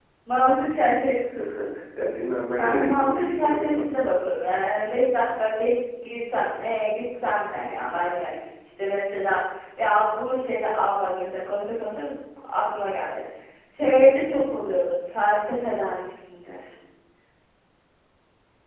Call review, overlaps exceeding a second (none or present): present